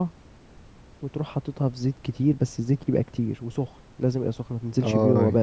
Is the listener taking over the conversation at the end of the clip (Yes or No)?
Yes